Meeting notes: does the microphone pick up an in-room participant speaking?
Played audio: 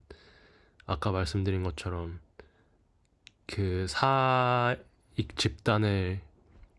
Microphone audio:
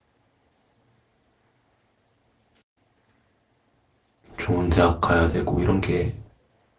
Yes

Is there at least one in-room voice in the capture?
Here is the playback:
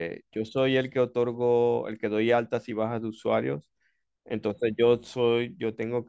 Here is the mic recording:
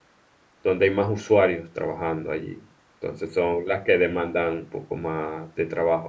Yes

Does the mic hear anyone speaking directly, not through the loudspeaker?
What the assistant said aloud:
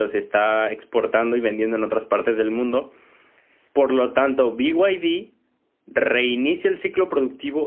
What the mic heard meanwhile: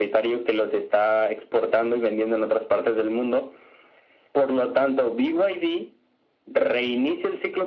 No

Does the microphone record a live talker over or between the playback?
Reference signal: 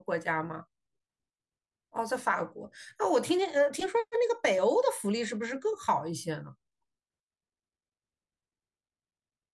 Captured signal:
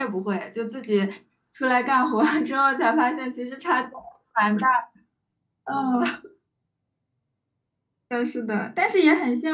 Yes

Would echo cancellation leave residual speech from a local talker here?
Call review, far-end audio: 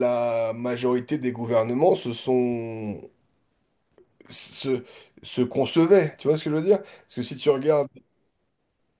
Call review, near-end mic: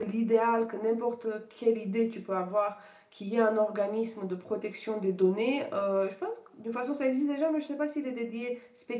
Yes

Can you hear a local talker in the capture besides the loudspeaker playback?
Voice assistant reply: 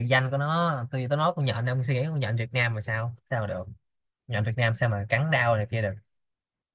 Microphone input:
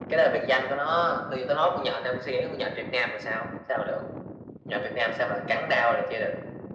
No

